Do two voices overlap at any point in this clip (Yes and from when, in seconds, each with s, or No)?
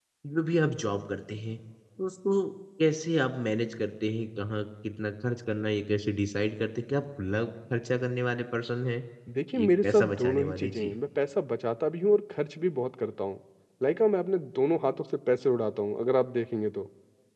Yes, from 9.6 s